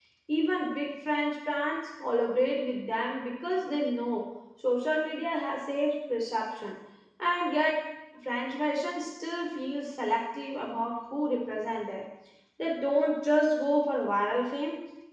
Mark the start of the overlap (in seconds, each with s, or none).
none